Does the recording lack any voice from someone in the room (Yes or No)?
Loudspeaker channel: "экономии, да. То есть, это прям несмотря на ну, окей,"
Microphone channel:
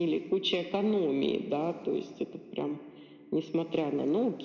Yes